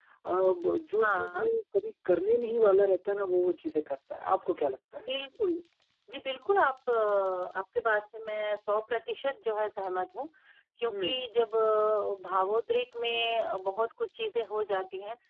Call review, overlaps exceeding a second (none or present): none